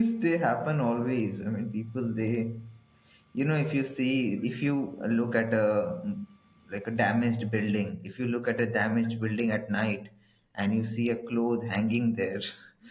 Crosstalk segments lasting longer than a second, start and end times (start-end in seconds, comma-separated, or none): none